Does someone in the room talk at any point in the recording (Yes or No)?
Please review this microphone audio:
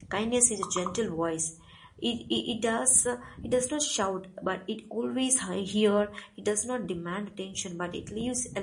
Yes